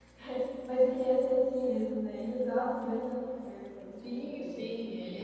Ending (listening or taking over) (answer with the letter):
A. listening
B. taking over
B